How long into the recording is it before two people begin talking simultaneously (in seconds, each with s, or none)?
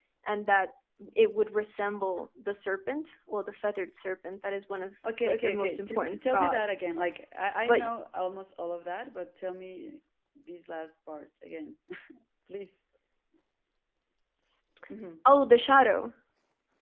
5.0 s